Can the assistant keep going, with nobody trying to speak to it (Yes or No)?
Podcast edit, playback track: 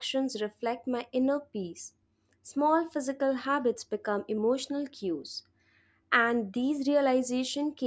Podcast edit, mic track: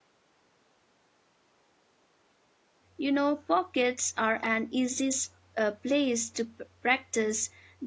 No